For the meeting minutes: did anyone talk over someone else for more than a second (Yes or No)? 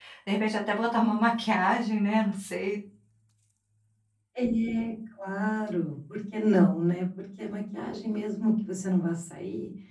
No